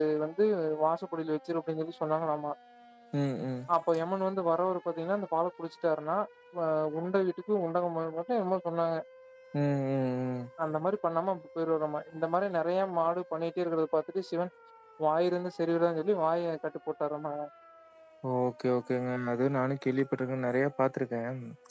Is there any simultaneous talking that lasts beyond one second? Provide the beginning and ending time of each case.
none

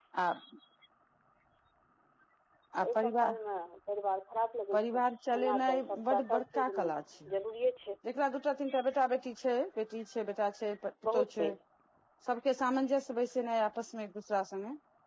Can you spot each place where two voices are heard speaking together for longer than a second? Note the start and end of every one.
5.4-6.9

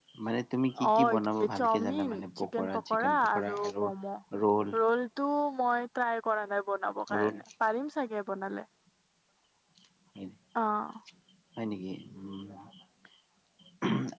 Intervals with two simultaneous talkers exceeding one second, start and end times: 0.9-3.7

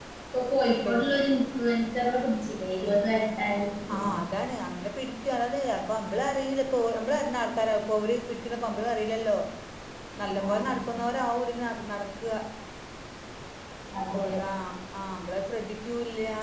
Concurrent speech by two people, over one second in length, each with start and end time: none

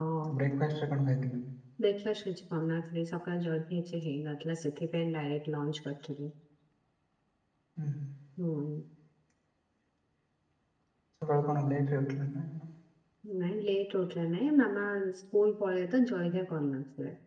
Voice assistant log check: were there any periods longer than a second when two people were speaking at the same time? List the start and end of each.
none

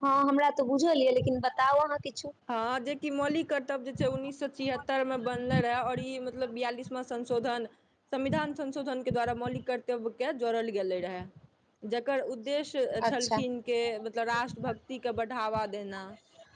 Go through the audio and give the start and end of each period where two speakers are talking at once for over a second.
none

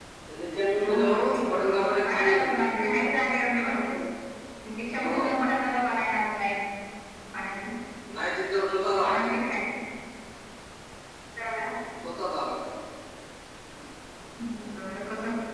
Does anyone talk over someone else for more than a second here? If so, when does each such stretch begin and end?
0.8-2.7

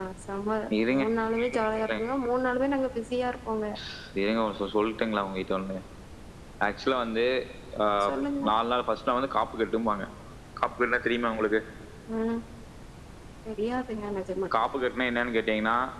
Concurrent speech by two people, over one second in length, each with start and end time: none

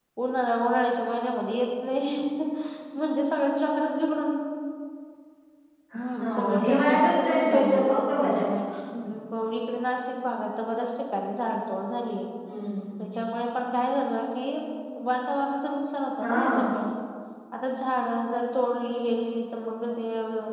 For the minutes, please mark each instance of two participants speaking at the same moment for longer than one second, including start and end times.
6.2-8.3

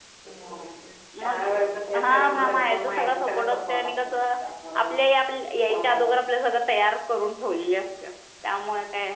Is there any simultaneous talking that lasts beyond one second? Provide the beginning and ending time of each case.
2.0-4.2

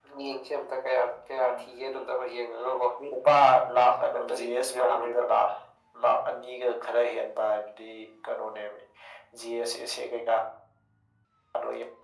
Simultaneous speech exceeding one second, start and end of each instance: 4.0-5.3

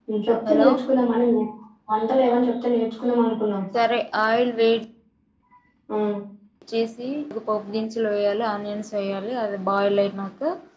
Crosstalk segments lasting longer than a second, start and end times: none

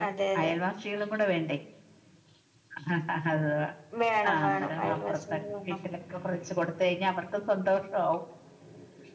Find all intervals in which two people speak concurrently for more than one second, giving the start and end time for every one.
4.3-5.8

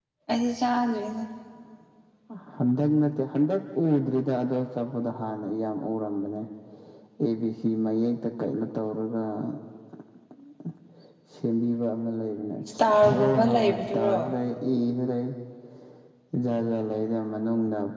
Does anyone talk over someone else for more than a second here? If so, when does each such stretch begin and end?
12.8-14.2

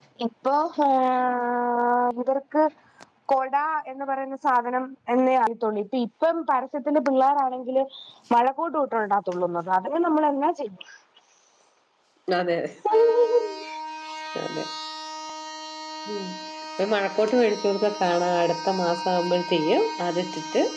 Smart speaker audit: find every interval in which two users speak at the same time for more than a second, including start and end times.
none

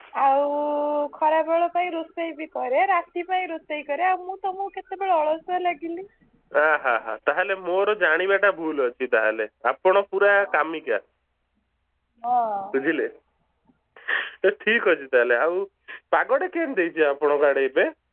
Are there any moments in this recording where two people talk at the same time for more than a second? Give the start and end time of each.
none

